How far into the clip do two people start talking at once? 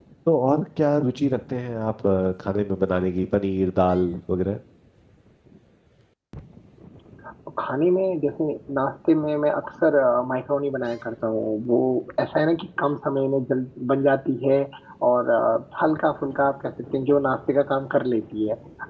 none

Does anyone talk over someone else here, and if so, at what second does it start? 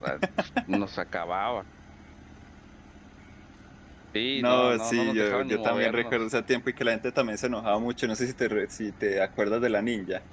4.3 s

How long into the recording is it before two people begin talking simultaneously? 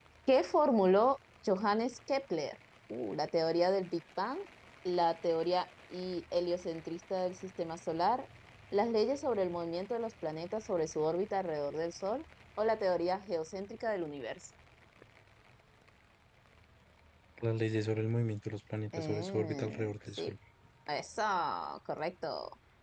18.9 s

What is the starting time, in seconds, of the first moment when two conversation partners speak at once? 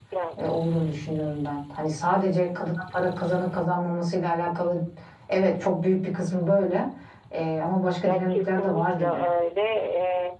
8.0 s

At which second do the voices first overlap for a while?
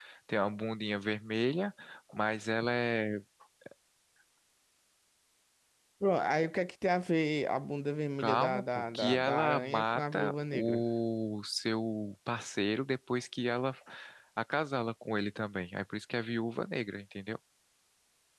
8.2 s

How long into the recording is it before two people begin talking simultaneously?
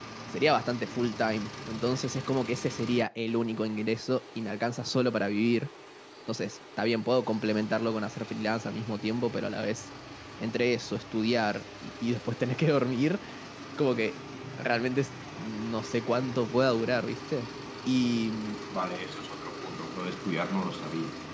none

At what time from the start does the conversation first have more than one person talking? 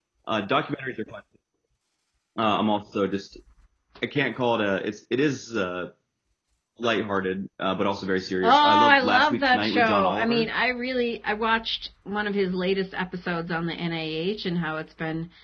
8.4 s

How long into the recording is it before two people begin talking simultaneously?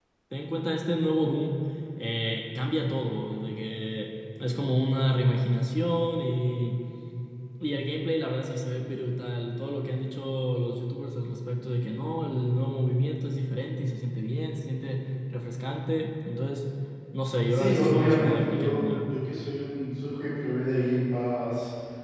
17.5 s

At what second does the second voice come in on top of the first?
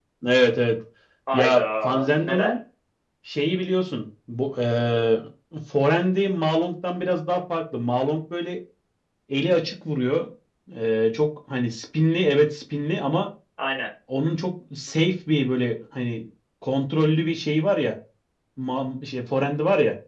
1.3 s

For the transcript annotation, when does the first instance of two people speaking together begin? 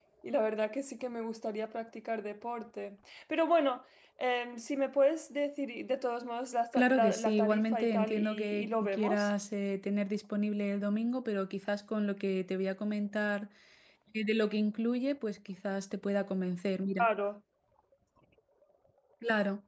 6.7 s

